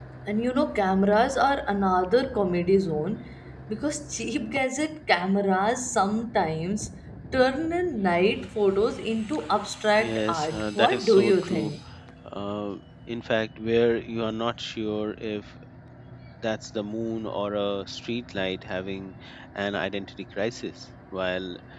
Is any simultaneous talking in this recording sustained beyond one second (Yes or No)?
Yes